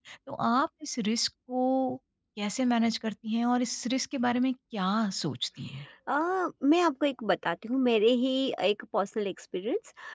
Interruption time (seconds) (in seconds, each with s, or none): none